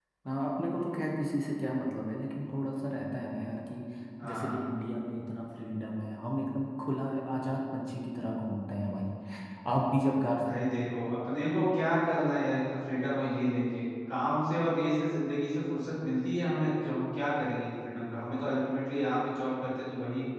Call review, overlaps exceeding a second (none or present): none